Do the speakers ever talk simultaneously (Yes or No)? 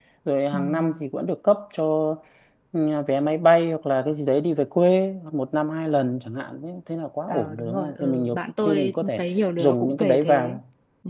Yes